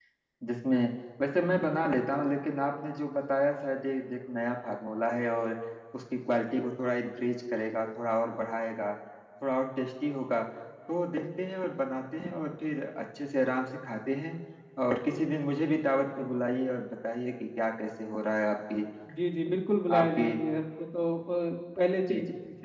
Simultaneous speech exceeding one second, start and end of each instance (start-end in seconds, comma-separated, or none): none